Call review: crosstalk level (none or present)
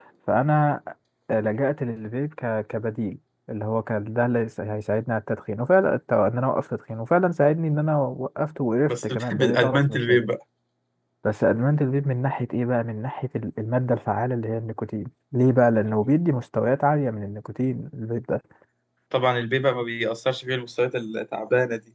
present